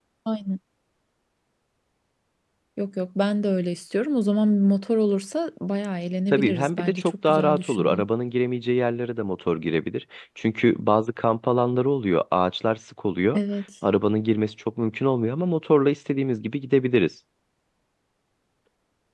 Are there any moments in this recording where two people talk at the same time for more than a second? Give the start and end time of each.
6.3-8.0

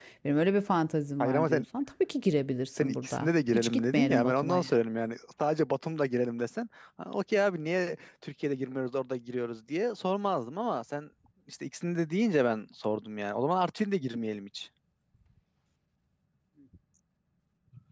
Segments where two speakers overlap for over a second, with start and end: 2.8-4.6

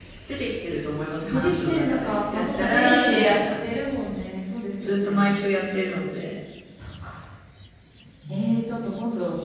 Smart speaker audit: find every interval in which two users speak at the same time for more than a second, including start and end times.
1.3-3.4

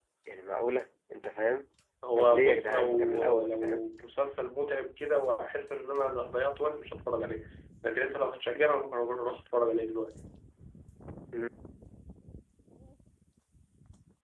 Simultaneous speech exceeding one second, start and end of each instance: 2.2-3.8

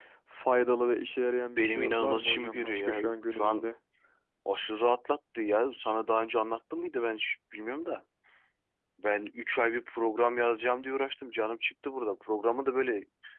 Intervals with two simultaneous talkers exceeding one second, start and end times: 1.6-3.6

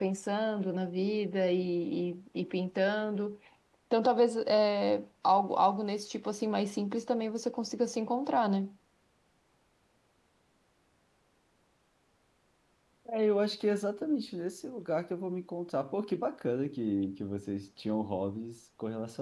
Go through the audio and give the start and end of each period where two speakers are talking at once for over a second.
none

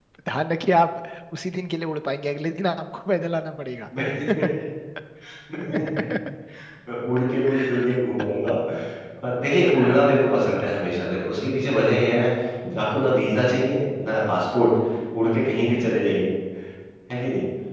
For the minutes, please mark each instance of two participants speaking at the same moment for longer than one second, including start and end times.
none

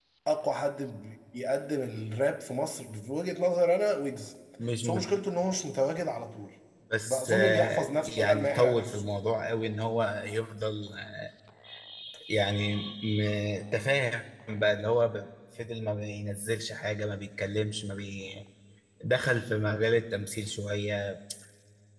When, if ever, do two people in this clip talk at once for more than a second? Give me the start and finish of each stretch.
7.0-9.0

